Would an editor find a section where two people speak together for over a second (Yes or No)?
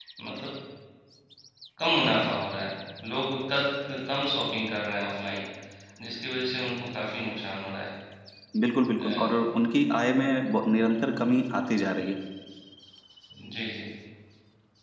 No